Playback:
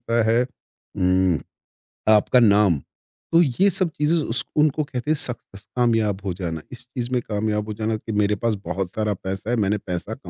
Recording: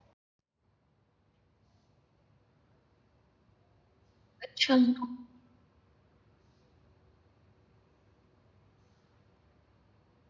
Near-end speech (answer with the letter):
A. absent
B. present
B